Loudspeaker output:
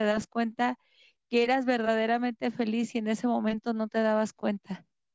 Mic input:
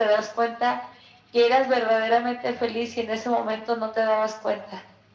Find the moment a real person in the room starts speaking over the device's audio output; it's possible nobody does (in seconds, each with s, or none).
none